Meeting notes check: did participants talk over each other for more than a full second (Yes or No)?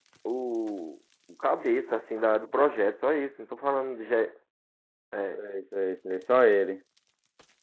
No